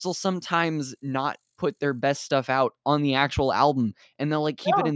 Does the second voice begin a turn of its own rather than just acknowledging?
No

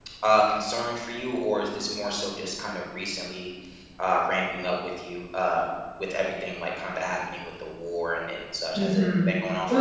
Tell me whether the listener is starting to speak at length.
Yes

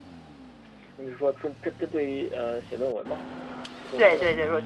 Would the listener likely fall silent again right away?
No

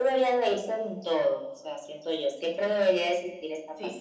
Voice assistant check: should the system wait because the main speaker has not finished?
Yes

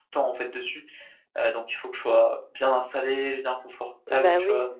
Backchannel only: No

